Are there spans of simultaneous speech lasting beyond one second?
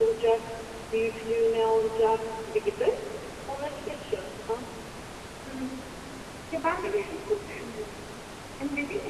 No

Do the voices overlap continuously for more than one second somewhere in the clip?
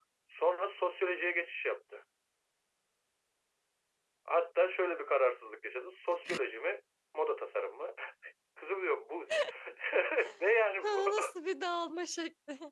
No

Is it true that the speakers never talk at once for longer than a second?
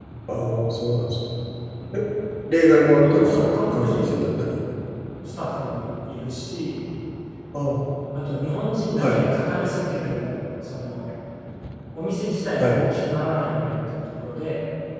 No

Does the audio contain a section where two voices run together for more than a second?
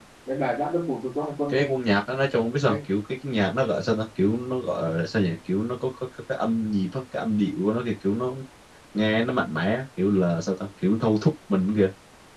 No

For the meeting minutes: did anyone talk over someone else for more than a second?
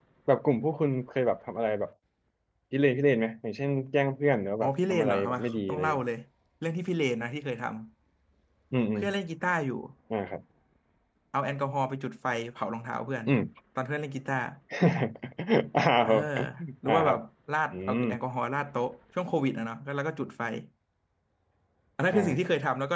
Yes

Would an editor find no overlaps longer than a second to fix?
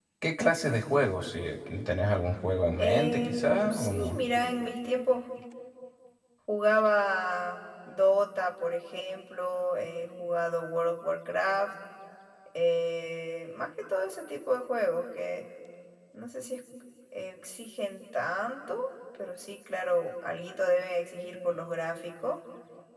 No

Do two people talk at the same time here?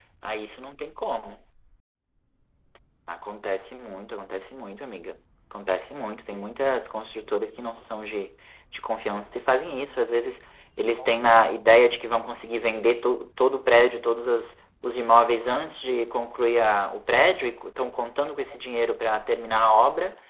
No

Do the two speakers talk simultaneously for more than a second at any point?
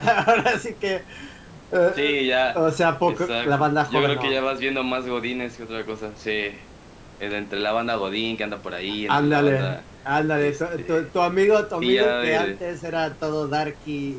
Yes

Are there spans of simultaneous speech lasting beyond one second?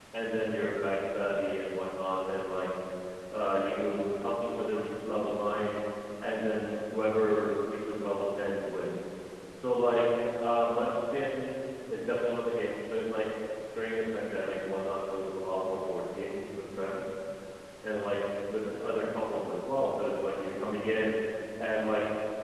No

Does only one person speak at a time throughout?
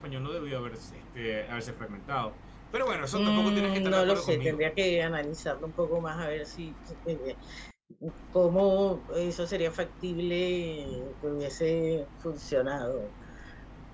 No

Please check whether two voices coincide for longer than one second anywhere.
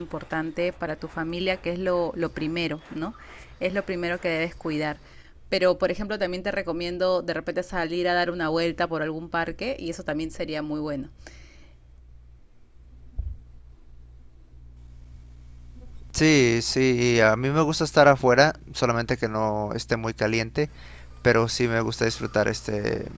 No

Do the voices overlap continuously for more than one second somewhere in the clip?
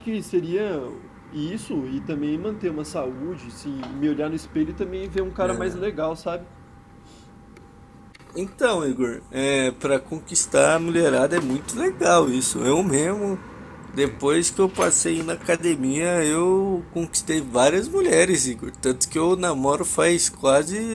No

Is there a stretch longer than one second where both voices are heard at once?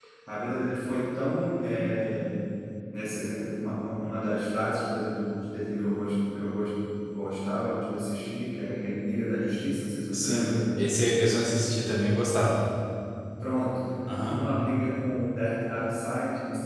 No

